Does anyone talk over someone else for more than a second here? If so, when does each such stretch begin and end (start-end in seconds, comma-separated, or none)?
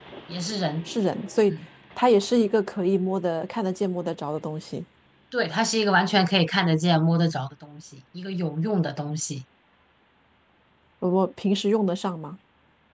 none